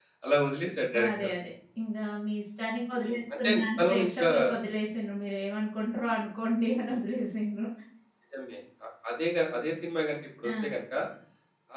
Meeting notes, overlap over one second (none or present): present